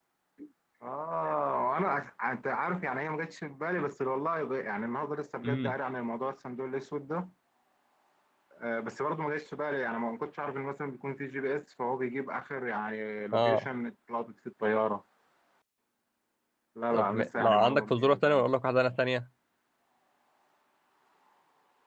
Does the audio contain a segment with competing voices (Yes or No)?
Yes